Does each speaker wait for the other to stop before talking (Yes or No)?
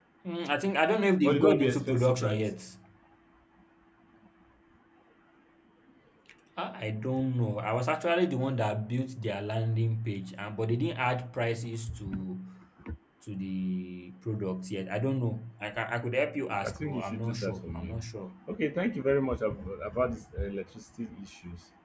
No